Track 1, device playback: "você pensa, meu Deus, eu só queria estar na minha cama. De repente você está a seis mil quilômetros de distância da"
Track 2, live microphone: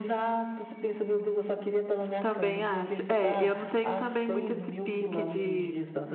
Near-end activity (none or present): present